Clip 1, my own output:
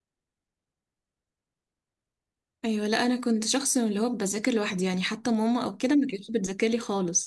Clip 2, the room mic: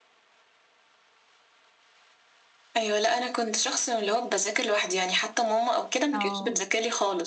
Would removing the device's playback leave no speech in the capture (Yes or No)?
No